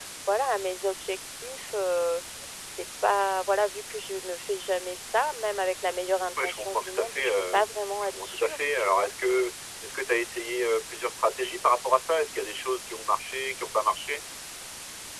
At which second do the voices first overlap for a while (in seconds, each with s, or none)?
6.4 s